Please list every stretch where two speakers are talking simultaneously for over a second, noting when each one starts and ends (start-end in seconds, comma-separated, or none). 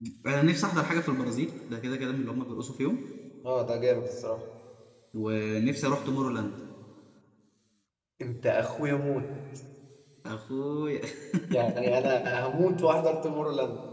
none